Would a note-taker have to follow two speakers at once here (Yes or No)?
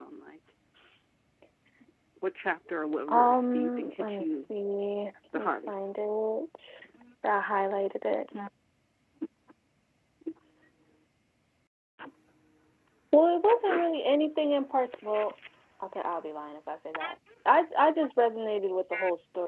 Yes